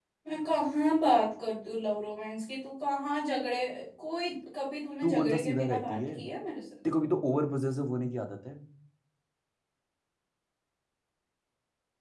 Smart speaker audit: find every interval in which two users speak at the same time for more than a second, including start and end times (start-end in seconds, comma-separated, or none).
5.0-6.3